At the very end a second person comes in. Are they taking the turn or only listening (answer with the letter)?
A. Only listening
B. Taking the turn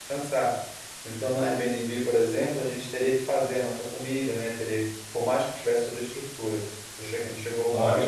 B